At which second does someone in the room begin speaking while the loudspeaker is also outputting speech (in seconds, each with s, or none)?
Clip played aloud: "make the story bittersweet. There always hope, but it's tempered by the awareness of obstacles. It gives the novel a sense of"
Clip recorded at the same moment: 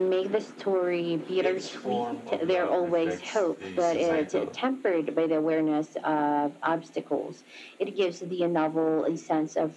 1.4 s